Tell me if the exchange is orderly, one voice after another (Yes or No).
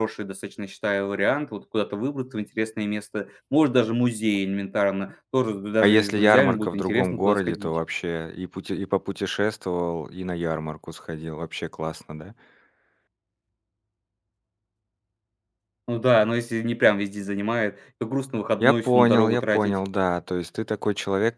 No